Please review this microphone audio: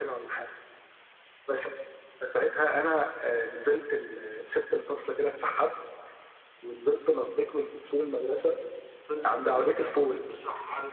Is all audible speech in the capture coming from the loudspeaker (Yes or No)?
No